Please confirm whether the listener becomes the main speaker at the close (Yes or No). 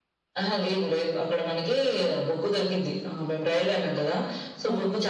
No